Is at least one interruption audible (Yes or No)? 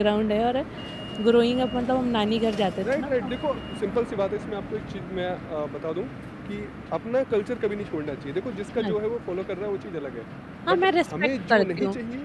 Yes